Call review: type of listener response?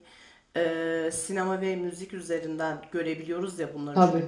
listening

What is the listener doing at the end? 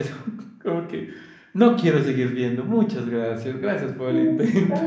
taking over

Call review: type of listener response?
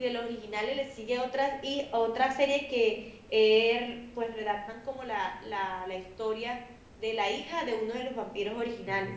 taking over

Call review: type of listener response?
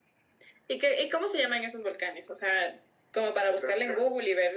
listening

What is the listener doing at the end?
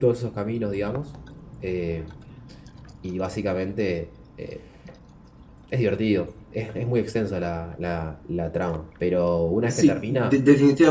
taking over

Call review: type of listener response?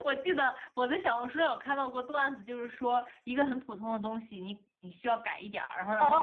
taking over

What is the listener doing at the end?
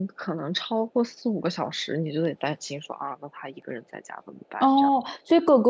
taking over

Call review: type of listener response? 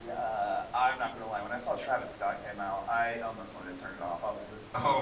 taking over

